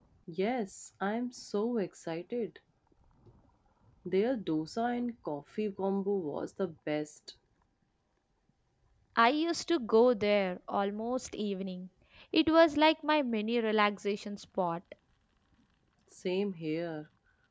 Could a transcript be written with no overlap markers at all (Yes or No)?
Yes